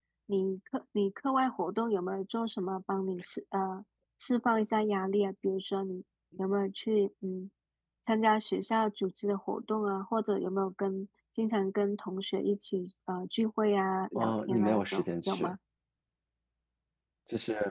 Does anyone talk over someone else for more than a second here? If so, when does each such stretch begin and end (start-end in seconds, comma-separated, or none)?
14.2-15.6